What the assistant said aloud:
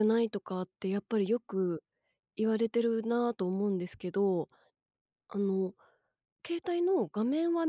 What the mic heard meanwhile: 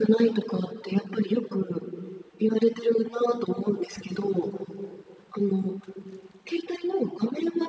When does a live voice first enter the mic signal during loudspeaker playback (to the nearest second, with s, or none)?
none